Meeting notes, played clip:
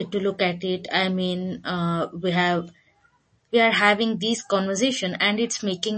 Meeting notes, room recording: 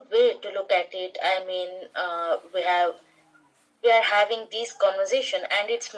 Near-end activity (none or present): none